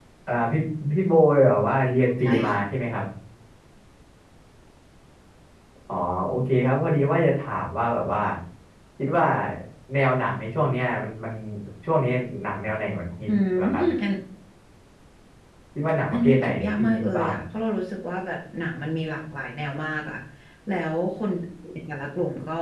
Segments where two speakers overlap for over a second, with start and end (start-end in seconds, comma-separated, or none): 16.1-17.4